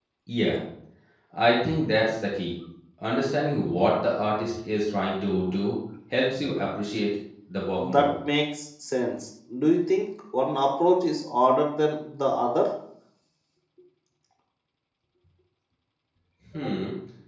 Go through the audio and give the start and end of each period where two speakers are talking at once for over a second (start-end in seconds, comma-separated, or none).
none